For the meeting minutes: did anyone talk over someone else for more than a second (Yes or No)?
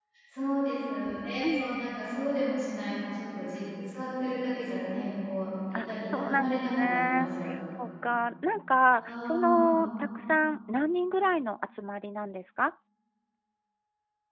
Yes